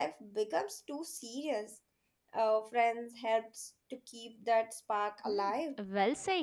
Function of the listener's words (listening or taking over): taking over